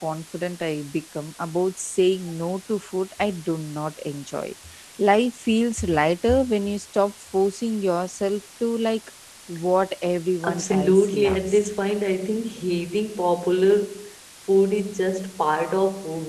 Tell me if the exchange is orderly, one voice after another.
No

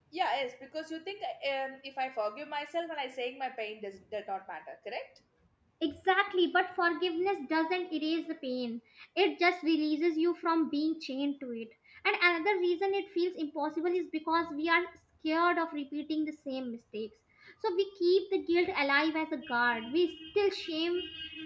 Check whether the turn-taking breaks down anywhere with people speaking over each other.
No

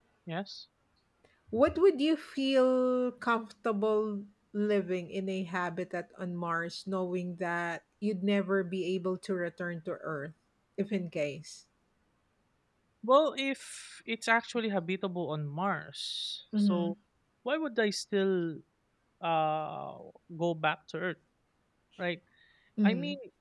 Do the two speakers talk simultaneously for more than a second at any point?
No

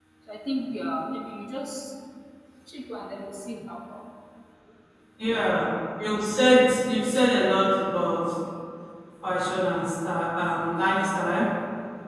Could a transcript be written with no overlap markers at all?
Yes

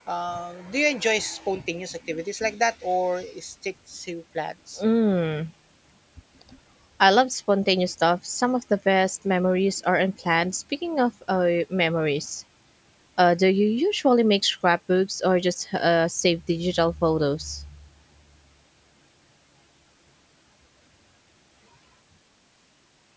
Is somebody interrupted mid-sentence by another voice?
No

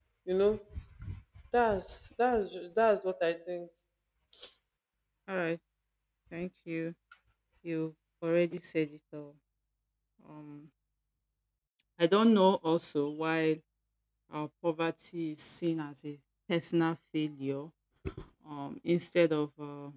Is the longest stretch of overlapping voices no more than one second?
Yes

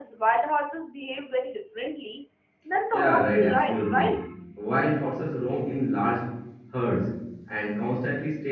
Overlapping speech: Yes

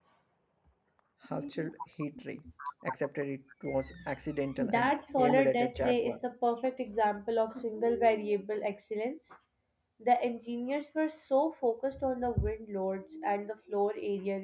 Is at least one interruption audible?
Yes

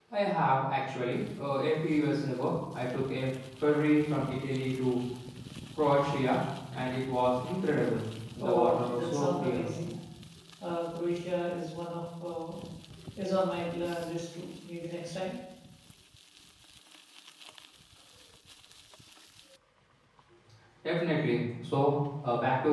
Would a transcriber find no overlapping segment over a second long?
No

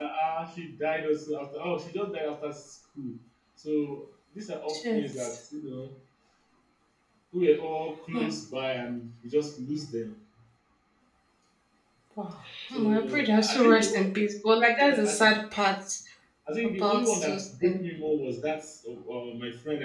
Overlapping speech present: Yes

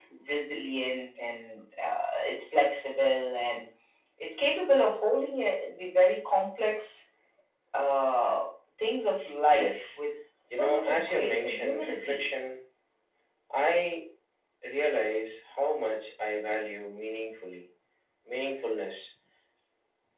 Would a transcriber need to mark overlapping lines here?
Yes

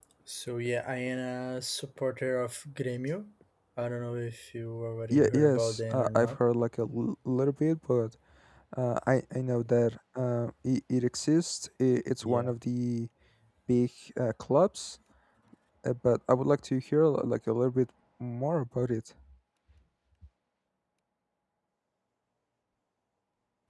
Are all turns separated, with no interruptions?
No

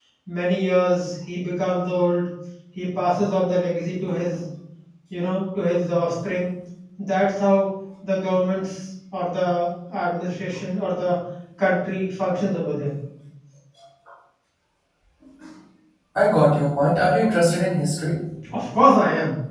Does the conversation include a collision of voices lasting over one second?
No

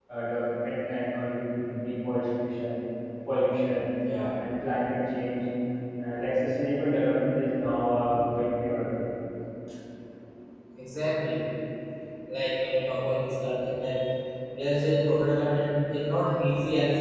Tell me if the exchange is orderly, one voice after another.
Yes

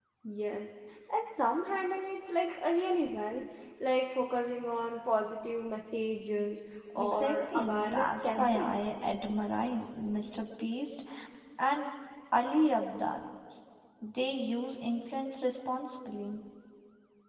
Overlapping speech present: Yes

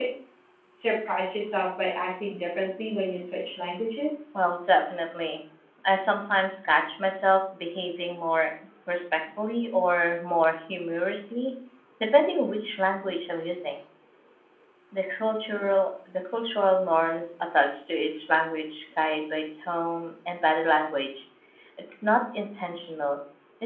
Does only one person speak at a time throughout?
Yes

